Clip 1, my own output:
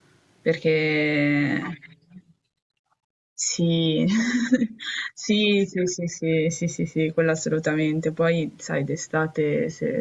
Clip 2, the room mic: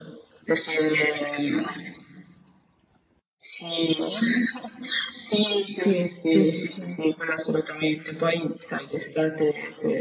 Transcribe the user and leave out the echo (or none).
Sì, sì, sì, sì.